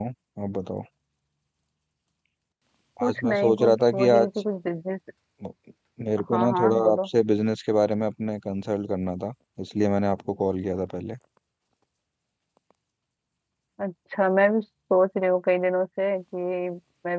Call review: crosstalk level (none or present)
present